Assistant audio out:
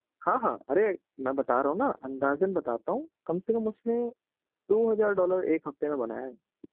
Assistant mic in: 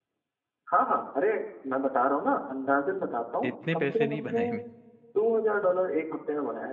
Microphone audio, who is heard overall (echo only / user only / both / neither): both